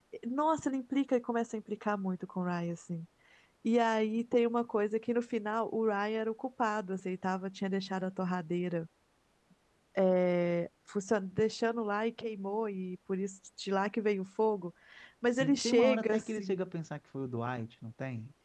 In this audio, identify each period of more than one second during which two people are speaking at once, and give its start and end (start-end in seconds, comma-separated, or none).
15.3-16.7